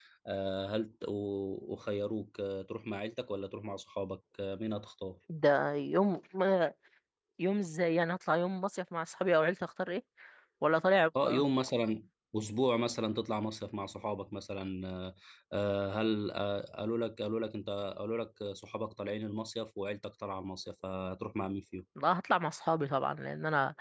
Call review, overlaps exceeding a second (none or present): none